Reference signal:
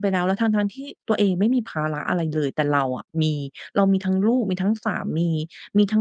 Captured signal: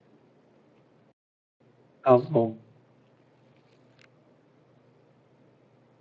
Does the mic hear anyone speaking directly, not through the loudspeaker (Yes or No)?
Yes